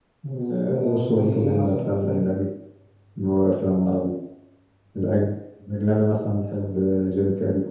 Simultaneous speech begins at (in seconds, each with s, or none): 0.8 s